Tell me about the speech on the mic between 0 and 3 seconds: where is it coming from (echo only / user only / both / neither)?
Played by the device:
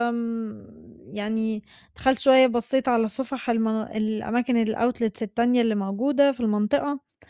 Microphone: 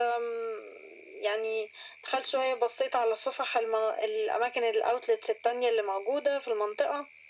echo only